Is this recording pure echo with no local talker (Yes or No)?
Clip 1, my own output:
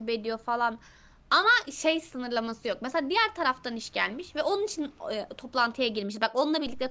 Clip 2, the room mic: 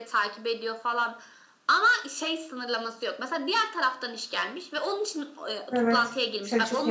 No